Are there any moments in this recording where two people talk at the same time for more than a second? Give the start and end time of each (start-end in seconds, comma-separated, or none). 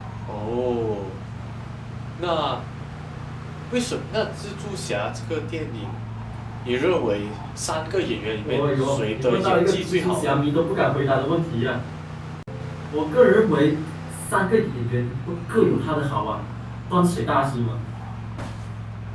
8.4-10.4